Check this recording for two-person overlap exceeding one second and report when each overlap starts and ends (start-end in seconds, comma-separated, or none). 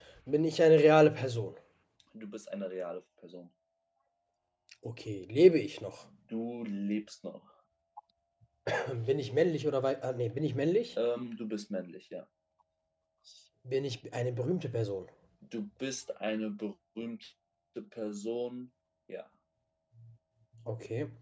none